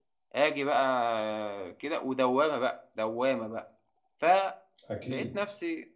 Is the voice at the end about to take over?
No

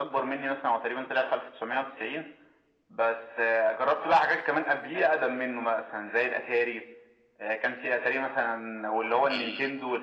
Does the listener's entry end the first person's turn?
No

